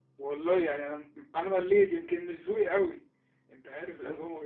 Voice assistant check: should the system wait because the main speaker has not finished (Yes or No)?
Yes